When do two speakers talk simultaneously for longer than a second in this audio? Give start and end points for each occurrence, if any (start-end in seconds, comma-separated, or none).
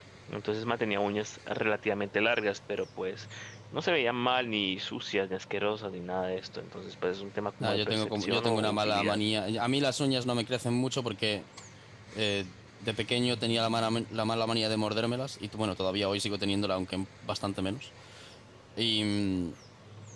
7.6-9.2